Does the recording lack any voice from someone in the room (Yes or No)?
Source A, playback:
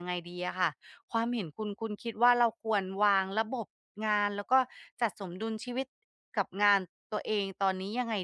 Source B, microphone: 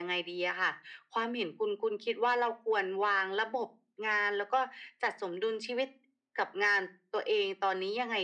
Yes